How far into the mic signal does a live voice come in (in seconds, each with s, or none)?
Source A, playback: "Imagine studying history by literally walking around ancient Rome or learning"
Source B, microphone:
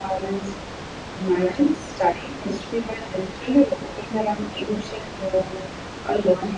none